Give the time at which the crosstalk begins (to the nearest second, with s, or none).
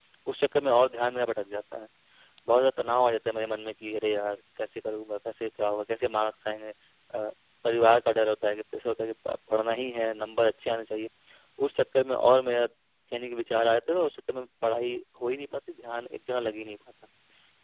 none